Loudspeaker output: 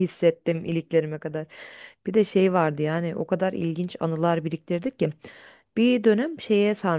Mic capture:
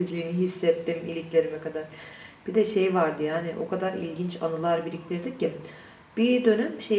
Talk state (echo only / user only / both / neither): echo only